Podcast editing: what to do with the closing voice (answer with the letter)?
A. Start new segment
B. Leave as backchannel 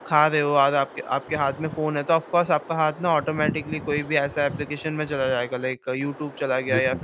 B